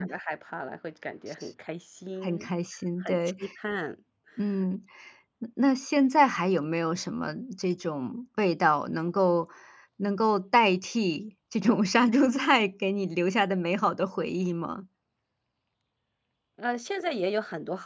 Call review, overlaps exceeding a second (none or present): none